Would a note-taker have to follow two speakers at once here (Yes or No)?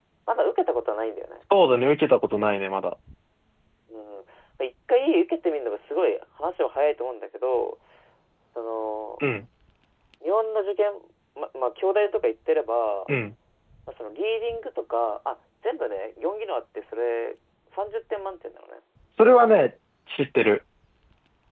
No